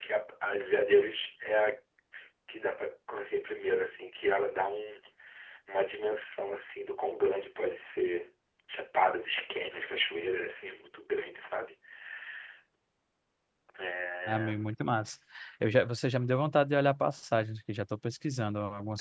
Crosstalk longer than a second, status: none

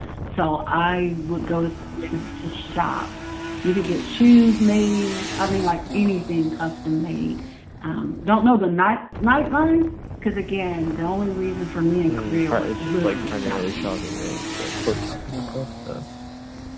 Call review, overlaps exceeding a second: present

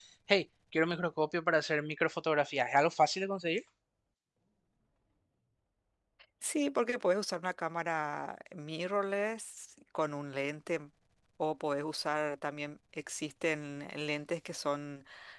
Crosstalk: none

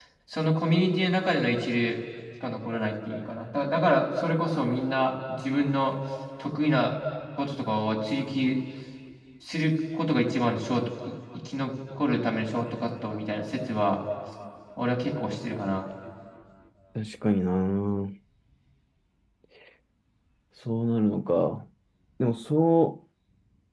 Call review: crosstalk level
none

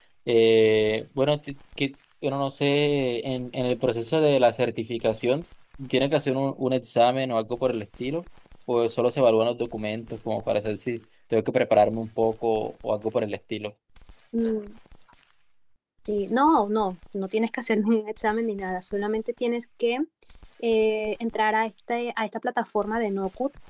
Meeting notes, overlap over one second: none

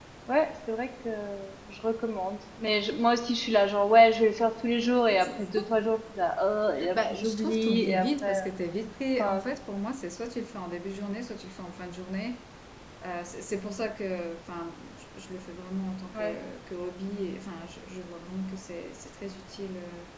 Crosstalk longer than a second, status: present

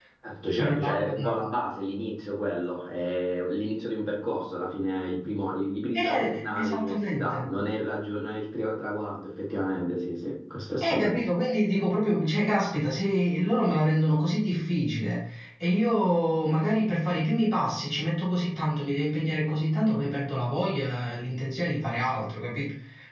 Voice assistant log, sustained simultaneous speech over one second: present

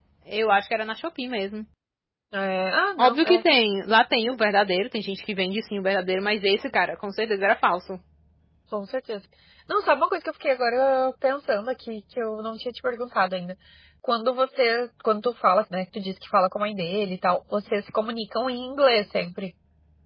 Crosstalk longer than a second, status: none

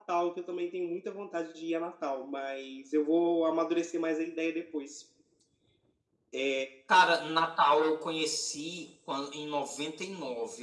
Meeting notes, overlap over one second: none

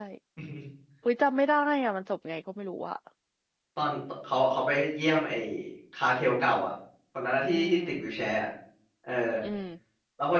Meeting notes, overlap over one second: none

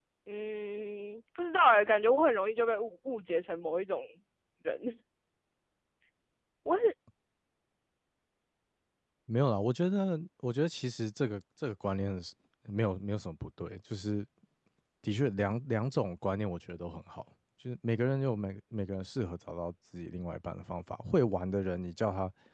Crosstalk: none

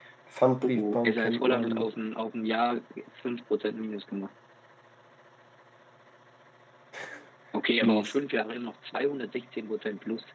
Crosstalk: present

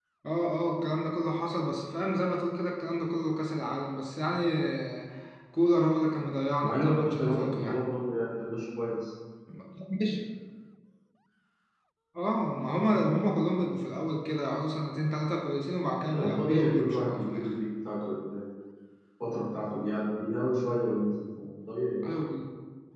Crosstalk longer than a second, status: present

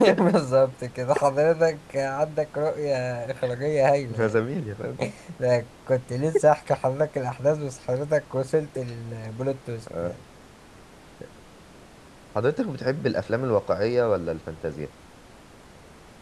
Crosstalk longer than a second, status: none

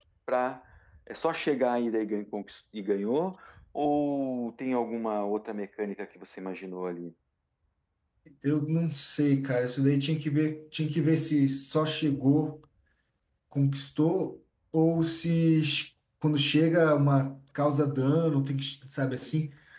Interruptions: none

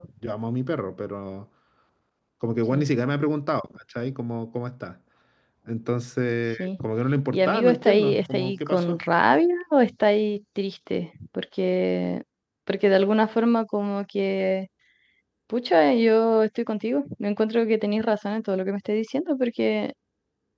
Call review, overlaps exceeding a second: present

